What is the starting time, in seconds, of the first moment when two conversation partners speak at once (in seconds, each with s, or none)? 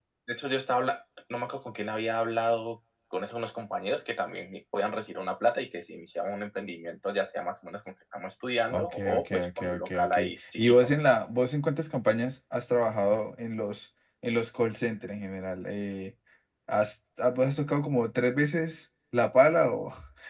8.7 s